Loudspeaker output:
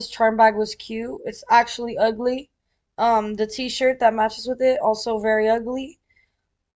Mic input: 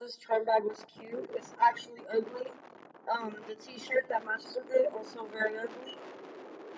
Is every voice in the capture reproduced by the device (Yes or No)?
Yes